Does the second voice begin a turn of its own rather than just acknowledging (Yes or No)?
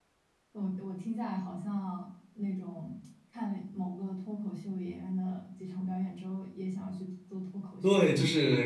Yes